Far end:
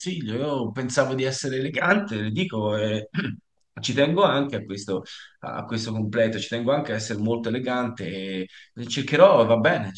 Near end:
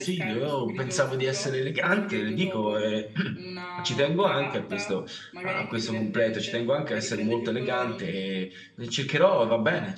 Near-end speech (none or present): present